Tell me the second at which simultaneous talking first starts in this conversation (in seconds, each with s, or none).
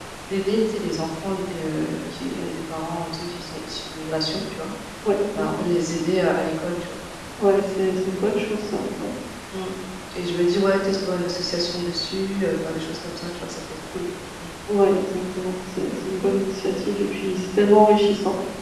none